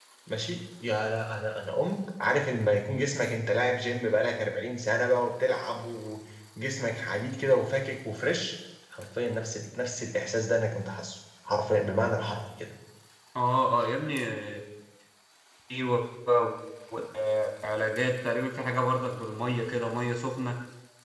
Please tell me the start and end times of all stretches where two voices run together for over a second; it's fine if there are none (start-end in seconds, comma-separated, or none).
none